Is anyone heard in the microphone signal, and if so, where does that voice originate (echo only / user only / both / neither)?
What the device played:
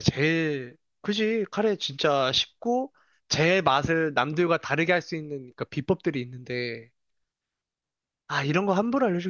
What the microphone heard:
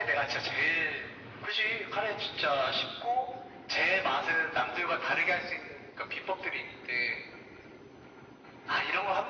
echo only